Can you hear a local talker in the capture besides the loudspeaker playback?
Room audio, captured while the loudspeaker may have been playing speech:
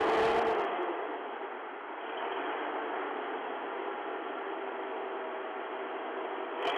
No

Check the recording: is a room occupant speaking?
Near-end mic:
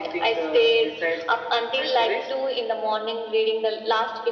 No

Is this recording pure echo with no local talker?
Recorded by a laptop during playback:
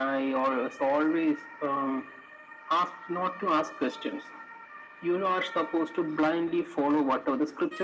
Yes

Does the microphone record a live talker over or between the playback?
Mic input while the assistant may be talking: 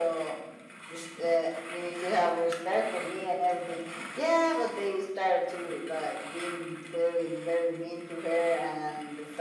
No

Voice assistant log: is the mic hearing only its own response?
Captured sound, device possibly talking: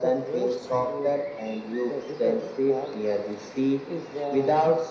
Yes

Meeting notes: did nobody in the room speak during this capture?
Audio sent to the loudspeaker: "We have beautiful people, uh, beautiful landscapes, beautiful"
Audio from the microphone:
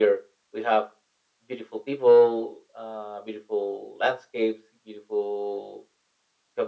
Yes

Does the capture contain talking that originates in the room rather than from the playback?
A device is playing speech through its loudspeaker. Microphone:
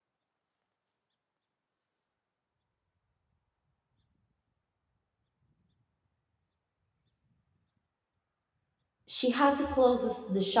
Yes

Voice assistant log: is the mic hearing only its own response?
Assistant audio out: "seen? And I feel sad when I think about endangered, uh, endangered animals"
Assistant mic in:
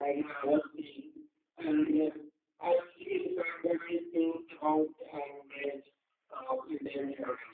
Yes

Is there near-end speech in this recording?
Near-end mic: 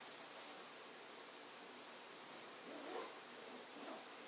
No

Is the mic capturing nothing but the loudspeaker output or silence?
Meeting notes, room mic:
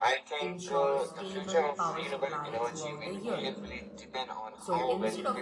No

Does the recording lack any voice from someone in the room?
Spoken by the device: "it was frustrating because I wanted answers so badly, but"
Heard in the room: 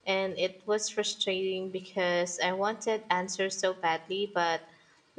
Yes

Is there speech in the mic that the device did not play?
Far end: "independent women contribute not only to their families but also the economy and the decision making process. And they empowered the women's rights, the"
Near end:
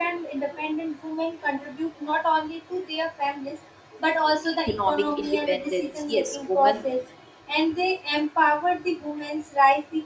Yes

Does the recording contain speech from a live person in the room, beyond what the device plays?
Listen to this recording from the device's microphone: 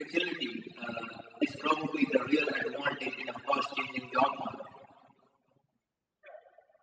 No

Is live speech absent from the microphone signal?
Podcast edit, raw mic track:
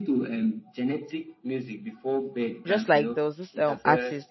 No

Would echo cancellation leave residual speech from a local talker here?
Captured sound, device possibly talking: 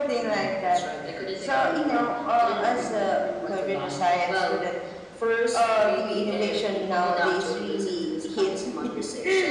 No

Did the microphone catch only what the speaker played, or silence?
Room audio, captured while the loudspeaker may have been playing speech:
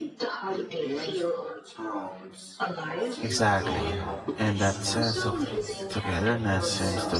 No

